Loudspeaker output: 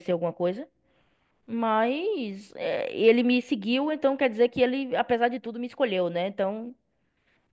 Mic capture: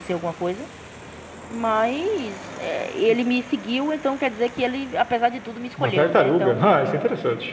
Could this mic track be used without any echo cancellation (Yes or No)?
No